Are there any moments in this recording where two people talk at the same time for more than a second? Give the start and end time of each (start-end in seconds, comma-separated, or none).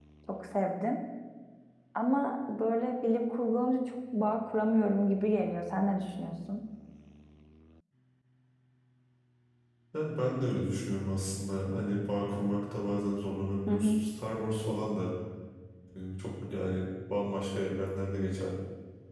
none